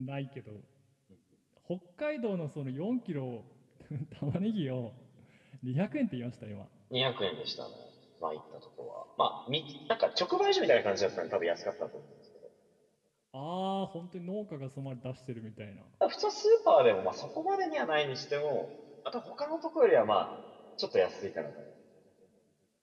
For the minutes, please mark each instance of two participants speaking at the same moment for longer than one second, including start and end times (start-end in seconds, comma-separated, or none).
none